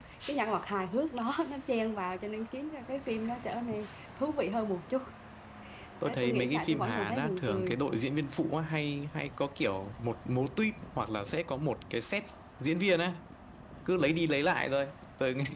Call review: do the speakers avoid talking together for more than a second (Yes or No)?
No